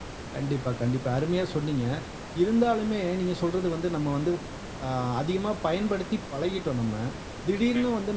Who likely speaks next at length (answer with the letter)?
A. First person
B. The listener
A